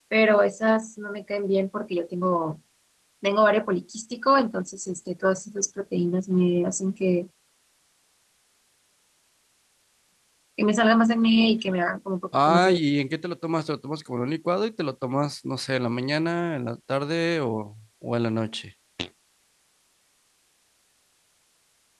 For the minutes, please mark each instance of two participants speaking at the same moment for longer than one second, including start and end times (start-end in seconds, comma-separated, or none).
none